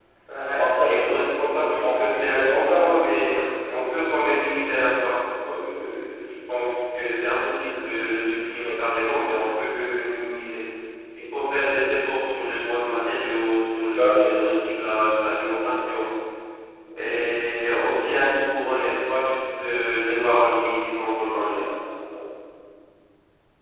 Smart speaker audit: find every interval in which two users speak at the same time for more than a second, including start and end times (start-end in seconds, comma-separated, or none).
0.5-2.8